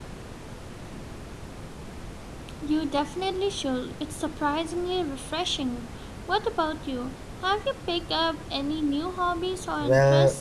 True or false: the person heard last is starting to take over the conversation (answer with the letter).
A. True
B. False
A